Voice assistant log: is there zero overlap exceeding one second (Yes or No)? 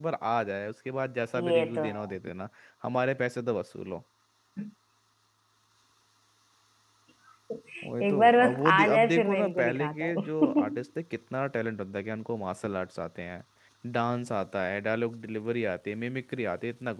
No